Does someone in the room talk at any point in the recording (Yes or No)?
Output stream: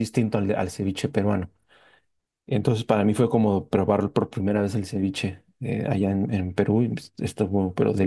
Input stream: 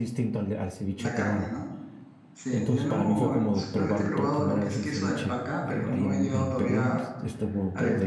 Yes